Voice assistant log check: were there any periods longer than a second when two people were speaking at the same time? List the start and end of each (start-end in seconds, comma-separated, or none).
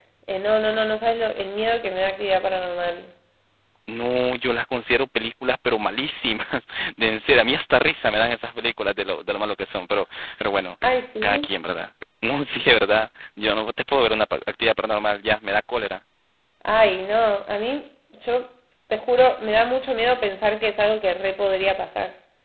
none